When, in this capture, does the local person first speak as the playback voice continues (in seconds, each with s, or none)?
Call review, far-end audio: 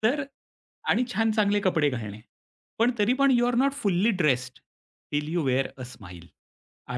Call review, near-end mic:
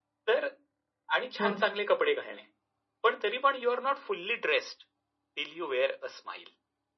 1.4 s